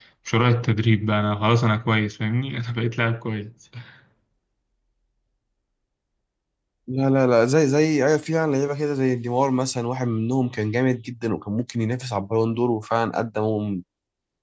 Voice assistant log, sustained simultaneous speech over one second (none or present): none